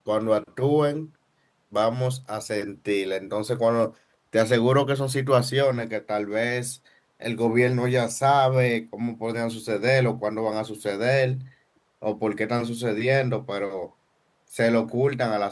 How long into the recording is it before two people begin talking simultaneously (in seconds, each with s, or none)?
none